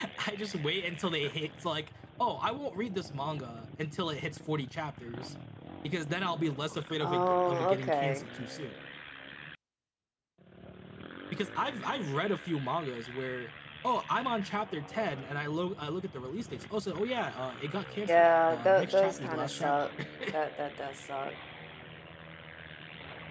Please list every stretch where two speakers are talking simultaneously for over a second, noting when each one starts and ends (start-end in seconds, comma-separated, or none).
7.0-8.2, 18.1-19.8